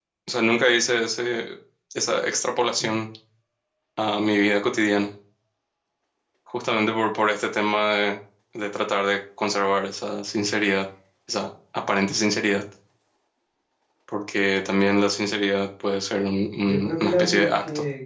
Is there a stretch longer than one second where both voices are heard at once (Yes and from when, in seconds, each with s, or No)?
Yes, from 16.6 s